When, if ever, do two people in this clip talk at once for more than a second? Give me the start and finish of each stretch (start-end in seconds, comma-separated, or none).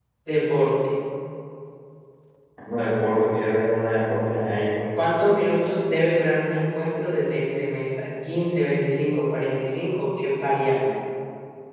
none